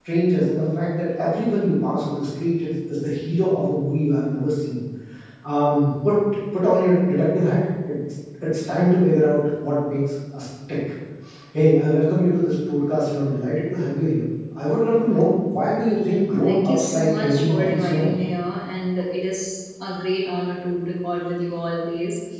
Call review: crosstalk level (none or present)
present